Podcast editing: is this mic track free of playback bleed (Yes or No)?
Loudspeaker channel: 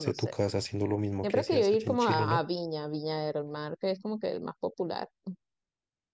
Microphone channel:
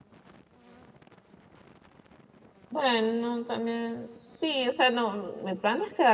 Yes